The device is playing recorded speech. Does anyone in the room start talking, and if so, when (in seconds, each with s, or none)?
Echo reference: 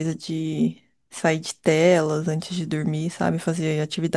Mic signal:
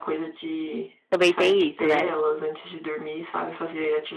1.1 s